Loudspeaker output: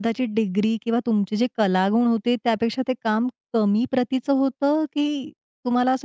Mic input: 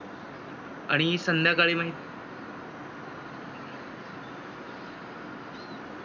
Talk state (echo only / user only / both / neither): user only